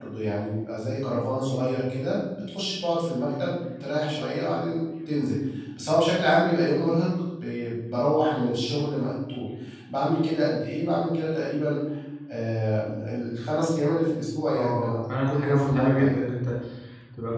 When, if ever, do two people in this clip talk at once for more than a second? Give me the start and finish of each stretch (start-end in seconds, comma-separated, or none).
14.6-16.2